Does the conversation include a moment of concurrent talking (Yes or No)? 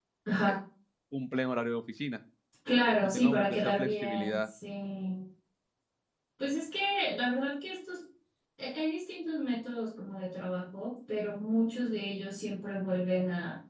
Yes